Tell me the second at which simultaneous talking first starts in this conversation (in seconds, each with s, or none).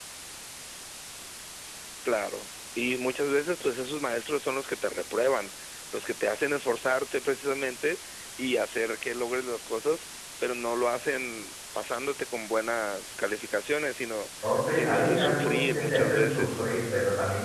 14.4 s